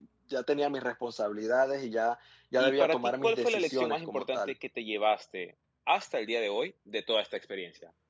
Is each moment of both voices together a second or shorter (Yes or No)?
No